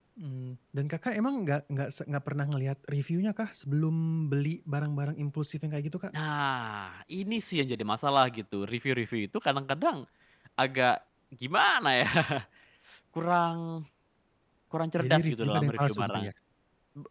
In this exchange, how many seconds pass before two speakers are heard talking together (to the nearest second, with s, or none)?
15 s